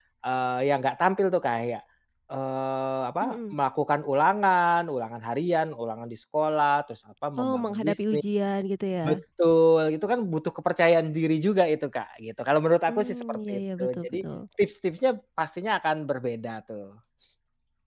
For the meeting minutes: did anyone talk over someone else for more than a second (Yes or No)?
Yes